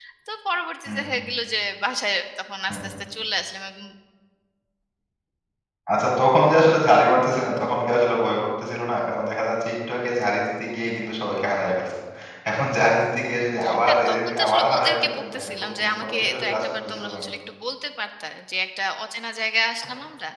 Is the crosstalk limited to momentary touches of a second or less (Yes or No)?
No